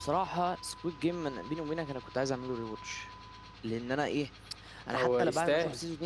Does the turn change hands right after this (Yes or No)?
No